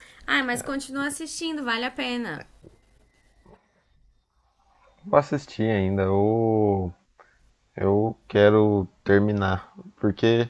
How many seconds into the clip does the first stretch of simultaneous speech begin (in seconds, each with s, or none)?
none